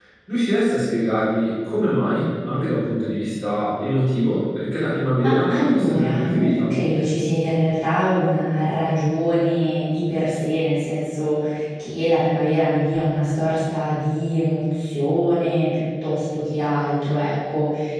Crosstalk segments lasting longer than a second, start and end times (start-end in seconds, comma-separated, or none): 5.2-6.7